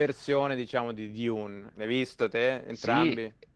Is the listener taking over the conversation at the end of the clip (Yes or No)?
Yes